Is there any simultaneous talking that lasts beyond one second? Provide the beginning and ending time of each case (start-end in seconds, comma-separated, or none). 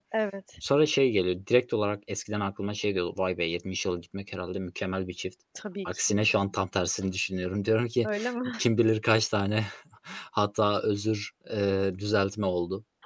none